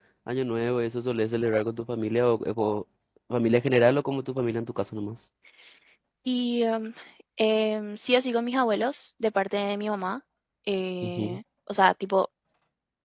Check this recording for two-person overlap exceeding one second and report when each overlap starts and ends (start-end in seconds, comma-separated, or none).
none